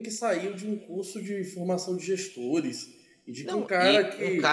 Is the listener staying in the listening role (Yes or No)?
No